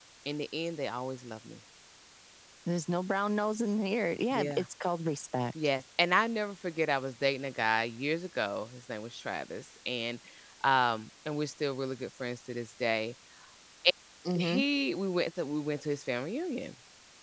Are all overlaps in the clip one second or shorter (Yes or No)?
Yes